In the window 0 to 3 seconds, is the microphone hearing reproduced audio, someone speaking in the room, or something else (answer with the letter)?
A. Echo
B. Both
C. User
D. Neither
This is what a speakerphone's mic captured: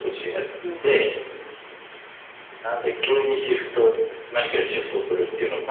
B